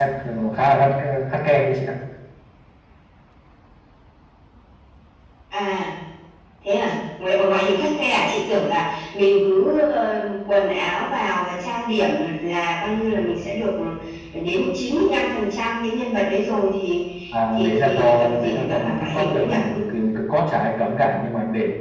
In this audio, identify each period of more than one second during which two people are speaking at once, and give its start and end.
17.6-19.5

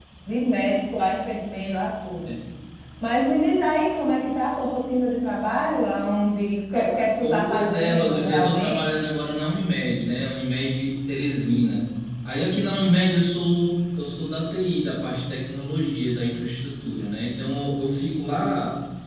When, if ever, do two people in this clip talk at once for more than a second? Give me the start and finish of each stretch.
7.2-8.8

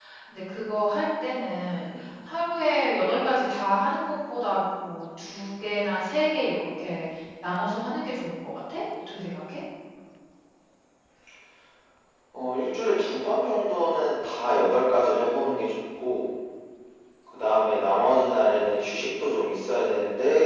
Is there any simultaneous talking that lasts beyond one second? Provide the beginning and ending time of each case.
none

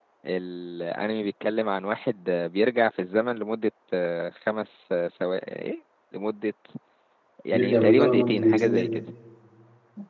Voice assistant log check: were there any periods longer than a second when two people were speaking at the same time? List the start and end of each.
7.5-9.0

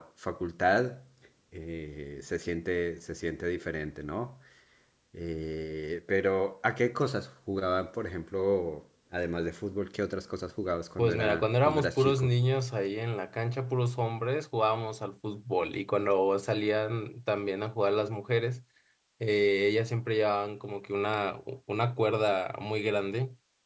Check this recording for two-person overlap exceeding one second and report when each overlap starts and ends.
11.0-12.3

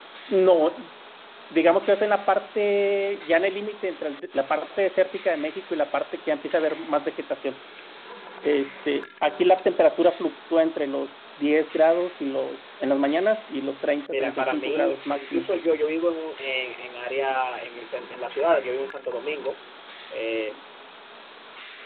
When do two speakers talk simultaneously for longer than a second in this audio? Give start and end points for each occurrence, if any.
14.1-15.5

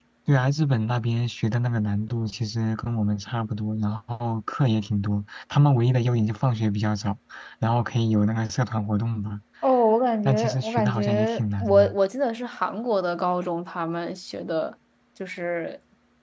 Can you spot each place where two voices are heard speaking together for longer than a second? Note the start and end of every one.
10.2-11.9

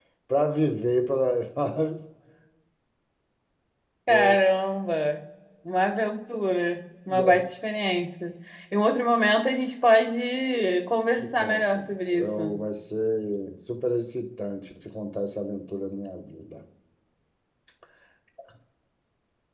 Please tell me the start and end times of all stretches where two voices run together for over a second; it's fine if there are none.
11.2-12.5

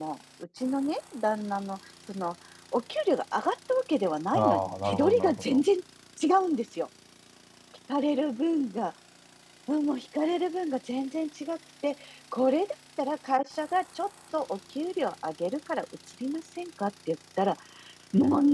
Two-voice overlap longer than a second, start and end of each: 4.3-5.6

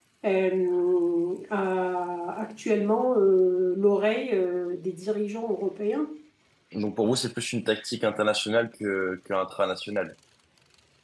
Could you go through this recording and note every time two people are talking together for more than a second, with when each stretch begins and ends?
none

